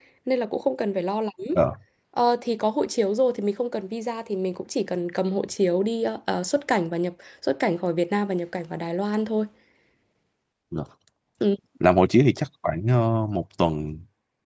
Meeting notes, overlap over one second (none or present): none